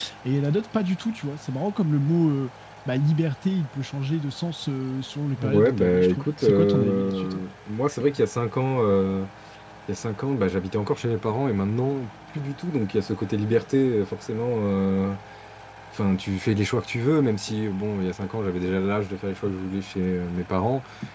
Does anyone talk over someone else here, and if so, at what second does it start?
5.4 s

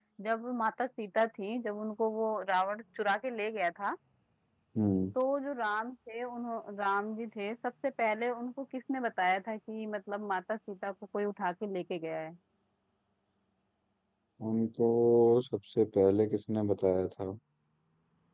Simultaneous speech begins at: none

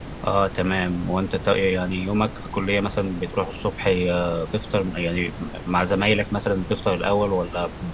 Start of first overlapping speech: none

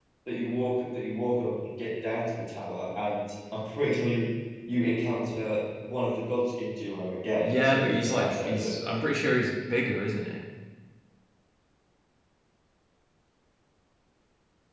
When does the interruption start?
7.4 s

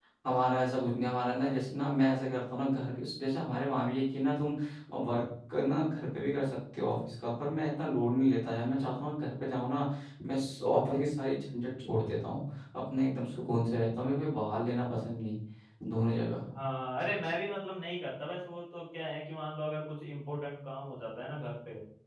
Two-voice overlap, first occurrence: none

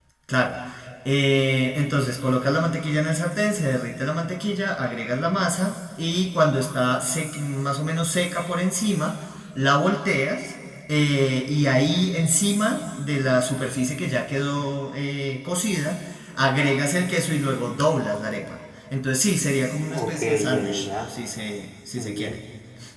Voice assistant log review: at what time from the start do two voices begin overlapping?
19.9 s

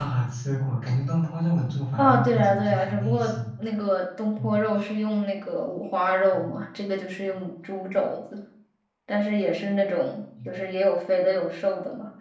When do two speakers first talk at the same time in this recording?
2.0 s

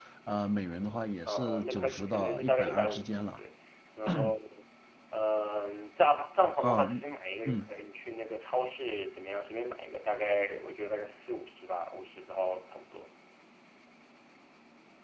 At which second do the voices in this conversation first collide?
1.2 s

